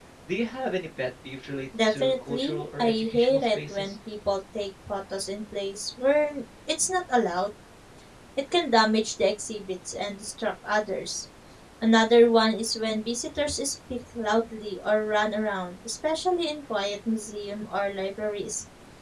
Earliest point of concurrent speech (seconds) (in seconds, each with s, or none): 1.7 s